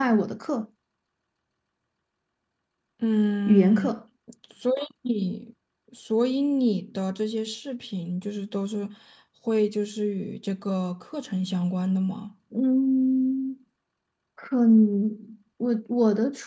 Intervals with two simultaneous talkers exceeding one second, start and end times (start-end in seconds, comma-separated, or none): none